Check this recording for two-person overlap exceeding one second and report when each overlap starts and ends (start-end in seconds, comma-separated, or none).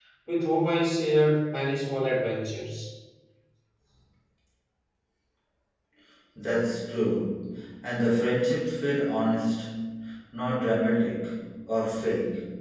none